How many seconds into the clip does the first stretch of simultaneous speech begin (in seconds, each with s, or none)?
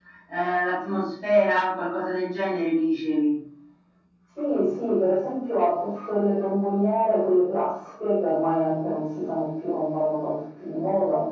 none